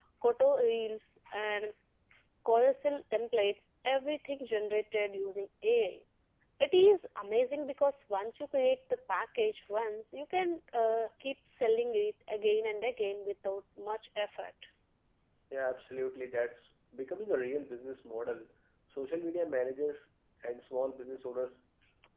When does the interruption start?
none

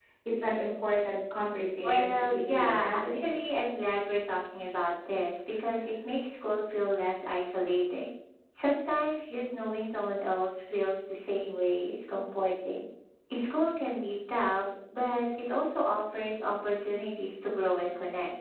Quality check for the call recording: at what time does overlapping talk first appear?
2 s

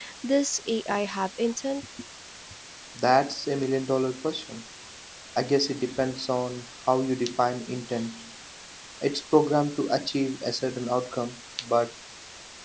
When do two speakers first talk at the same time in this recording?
none

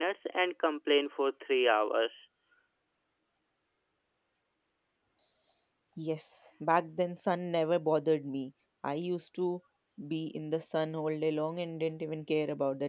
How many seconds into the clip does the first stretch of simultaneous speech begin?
none

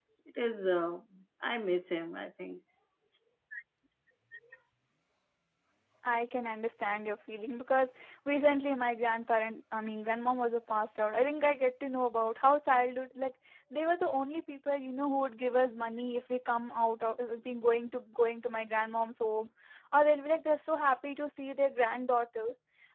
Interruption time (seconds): none

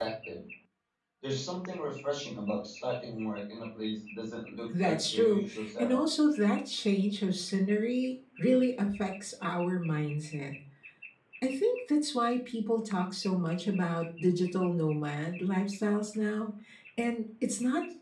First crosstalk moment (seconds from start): 5 s

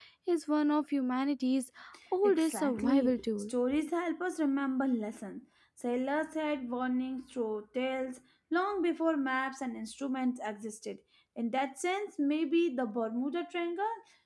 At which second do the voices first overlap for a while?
2 s

